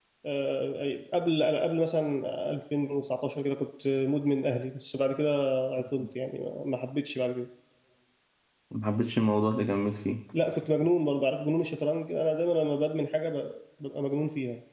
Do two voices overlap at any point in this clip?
No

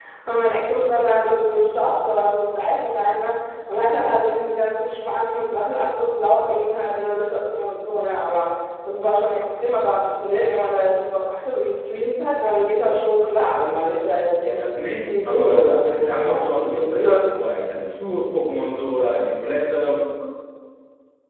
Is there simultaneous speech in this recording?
Yes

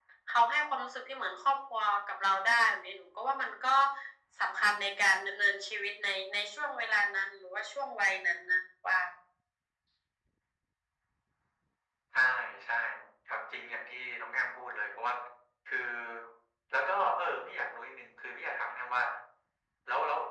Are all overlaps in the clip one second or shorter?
Yes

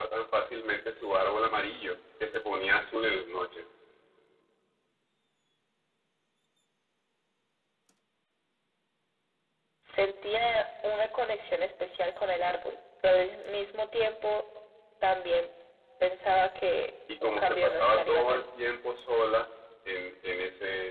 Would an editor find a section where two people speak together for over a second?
Yes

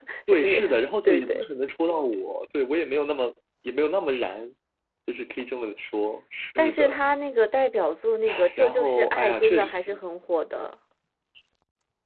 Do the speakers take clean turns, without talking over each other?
No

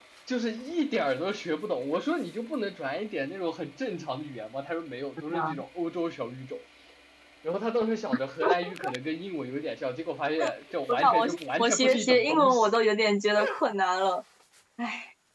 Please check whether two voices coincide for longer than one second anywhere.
Yes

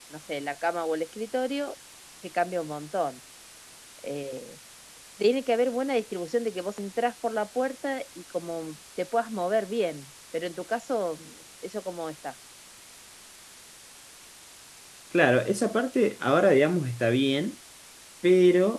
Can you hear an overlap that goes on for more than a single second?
No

